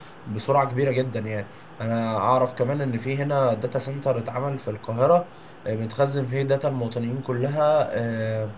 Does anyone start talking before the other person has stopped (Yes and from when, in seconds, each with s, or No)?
No